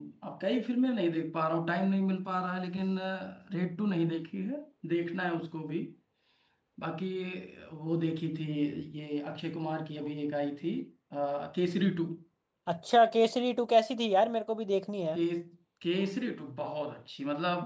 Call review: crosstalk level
none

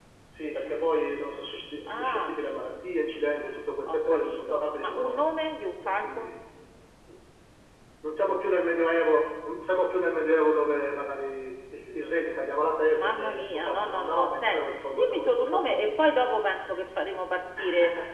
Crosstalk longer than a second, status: present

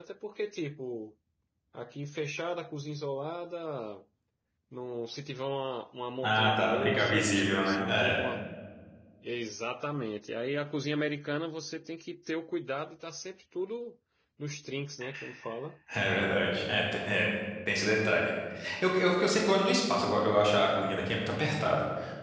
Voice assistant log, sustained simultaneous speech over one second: present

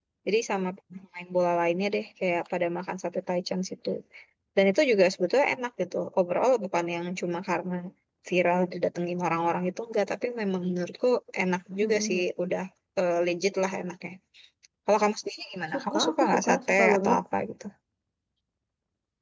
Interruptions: present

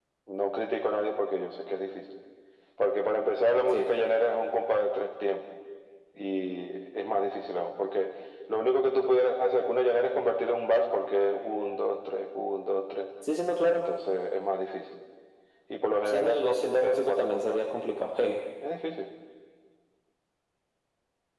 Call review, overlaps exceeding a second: present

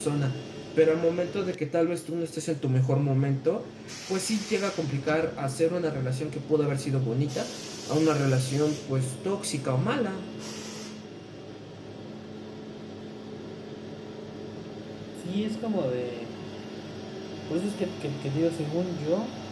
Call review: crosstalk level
none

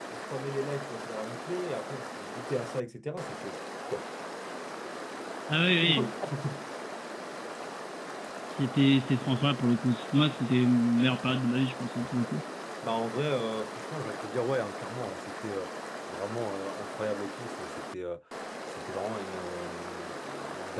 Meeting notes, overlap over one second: none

